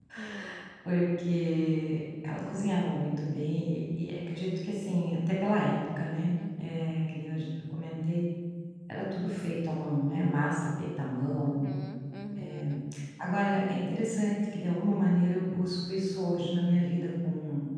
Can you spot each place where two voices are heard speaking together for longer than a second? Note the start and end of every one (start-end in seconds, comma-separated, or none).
none